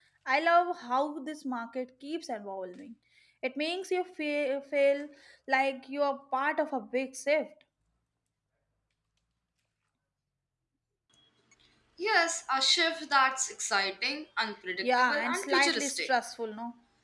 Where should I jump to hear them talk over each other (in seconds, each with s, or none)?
14.8 s